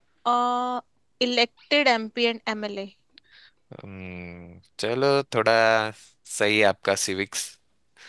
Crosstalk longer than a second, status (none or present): none